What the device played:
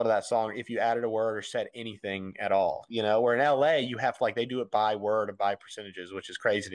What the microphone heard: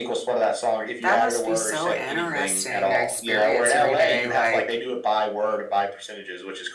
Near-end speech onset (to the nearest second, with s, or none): 1 s